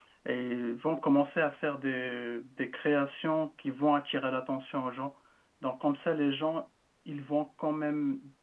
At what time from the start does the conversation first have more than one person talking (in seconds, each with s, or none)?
none